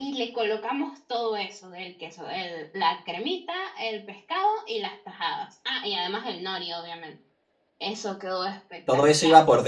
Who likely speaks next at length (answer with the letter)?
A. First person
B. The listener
B